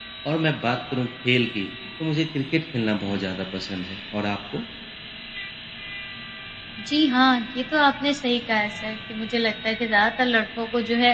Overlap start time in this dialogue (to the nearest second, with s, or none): none